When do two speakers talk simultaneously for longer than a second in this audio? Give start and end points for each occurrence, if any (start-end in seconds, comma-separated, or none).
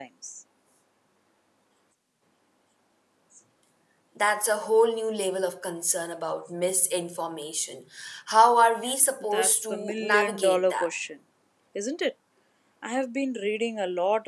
9.3-10.9